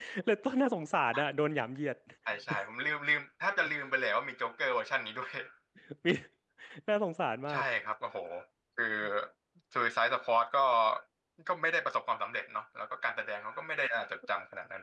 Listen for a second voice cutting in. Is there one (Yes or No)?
No